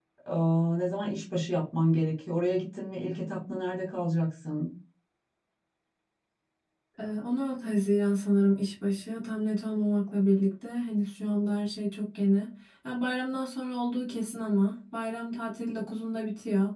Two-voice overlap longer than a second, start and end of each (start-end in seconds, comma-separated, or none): none